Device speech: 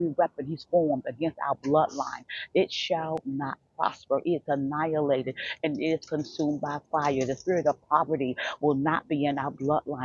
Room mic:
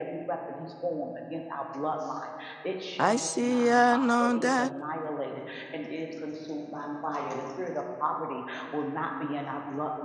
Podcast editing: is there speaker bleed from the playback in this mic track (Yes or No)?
Yes